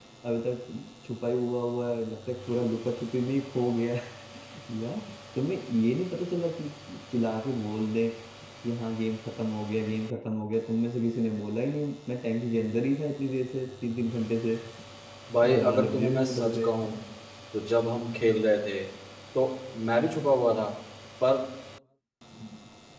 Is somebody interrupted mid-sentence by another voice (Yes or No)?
Yes